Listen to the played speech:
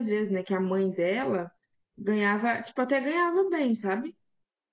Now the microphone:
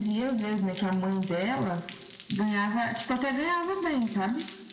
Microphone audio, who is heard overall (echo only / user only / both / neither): echo only